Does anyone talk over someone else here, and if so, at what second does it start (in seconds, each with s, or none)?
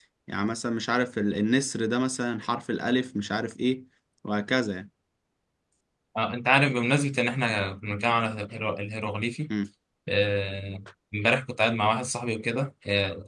none